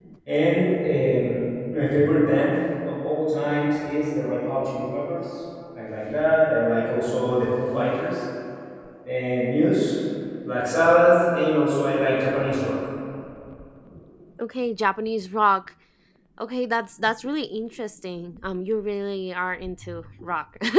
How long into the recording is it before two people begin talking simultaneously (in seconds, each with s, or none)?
none